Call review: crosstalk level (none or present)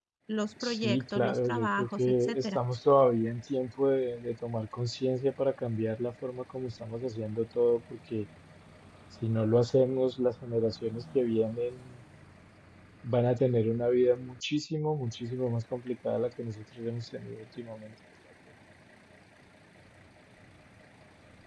present